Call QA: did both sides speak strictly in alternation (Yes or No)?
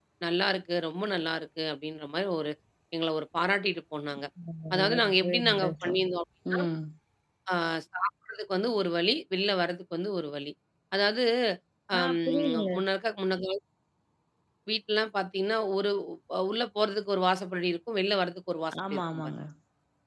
No